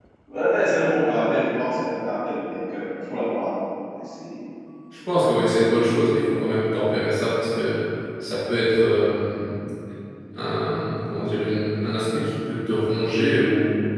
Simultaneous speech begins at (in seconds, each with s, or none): none